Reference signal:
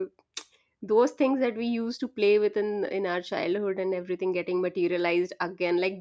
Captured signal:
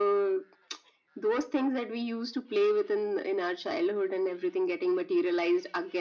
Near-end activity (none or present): none